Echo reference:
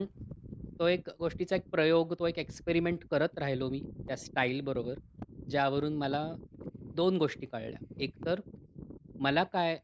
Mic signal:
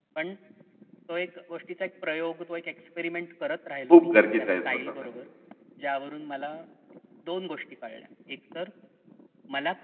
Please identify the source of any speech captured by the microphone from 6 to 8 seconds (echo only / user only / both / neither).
echo only